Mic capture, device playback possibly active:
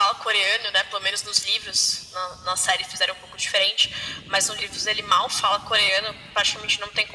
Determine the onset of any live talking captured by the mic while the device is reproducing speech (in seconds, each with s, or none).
none